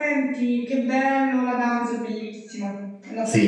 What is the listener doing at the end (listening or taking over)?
taking over